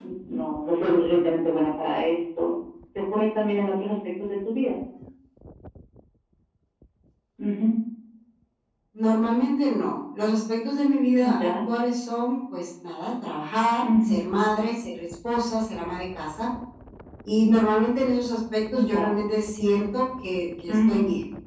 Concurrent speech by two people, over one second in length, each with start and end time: none

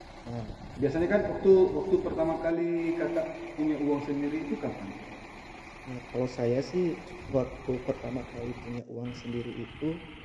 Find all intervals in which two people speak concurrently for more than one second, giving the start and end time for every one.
none

